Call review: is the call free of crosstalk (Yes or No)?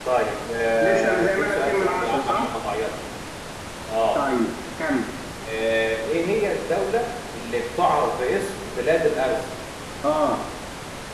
No